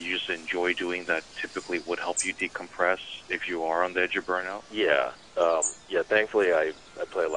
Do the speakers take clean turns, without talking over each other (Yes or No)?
Yes